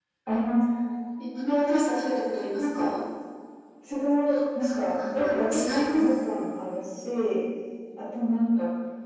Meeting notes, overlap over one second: present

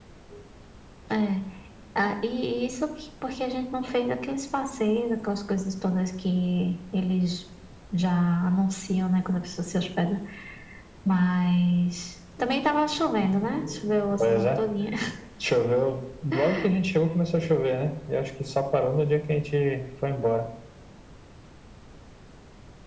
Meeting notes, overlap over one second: none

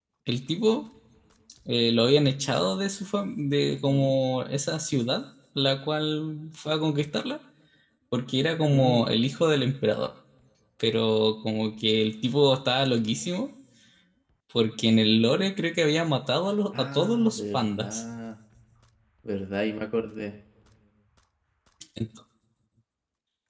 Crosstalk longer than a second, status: present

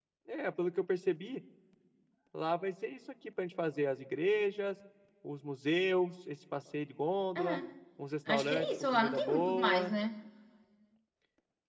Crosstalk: present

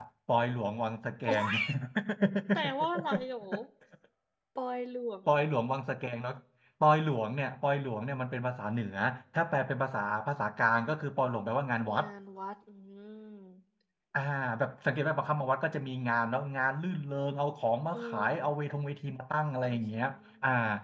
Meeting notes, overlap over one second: none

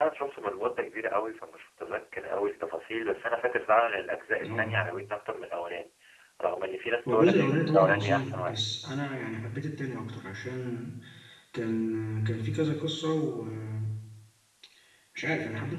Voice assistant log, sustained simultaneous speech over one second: present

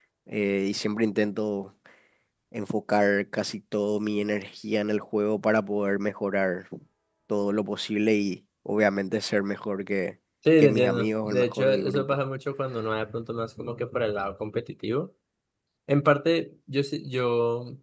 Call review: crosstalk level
present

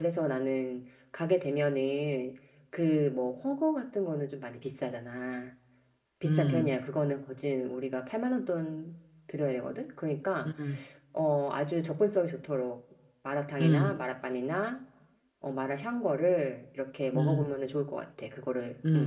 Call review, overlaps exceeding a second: none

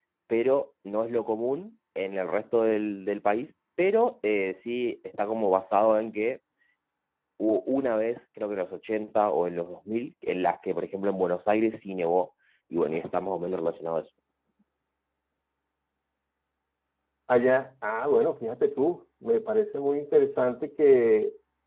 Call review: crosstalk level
none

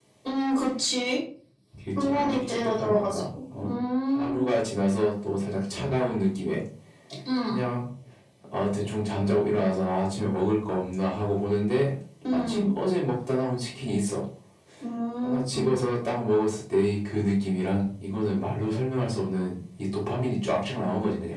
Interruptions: present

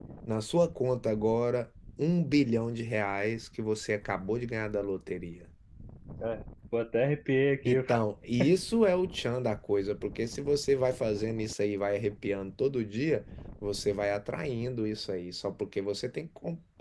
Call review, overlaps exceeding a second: none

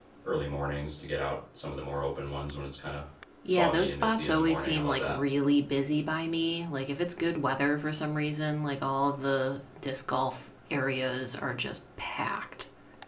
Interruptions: present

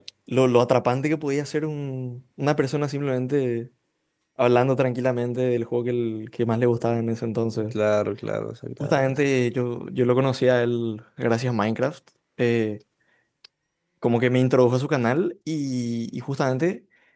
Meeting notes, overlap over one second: none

